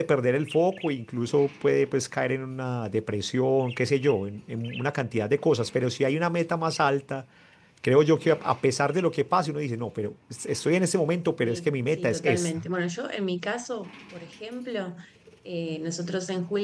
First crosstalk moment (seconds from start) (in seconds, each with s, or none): 11.4 s